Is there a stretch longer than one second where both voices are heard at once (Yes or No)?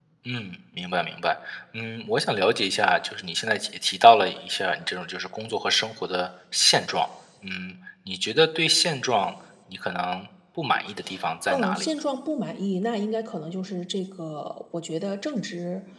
No